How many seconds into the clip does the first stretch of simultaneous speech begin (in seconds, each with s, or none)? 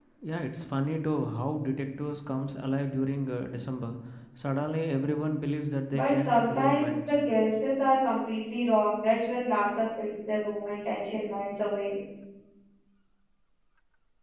5.9 s